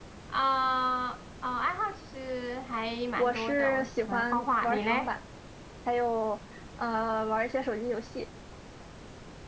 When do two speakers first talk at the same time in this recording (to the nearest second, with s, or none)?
3 s